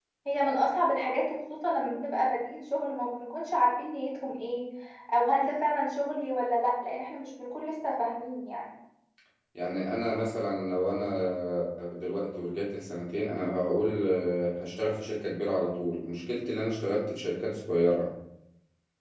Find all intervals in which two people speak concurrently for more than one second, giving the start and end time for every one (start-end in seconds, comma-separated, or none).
none